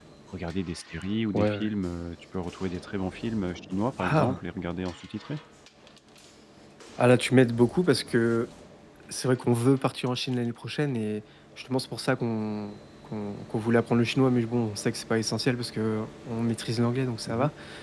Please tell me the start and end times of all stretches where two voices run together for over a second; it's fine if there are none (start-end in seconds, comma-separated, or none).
none